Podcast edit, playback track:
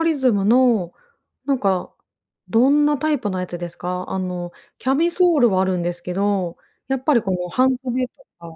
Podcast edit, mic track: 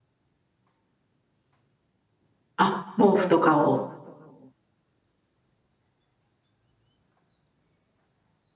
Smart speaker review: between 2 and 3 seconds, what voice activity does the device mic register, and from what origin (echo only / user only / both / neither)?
user only